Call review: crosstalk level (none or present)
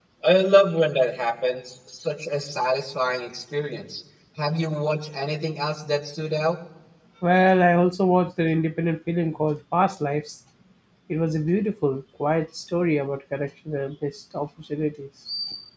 none